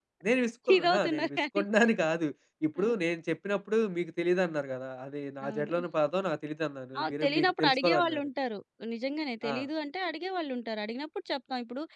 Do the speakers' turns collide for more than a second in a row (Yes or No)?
Yes